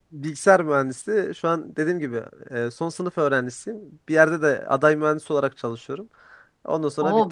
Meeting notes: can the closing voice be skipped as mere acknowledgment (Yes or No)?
No